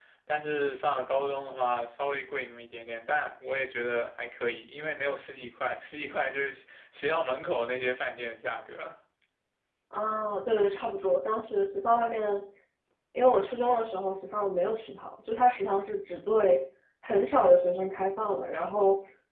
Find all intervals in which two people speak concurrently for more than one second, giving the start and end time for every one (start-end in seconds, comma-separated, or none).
none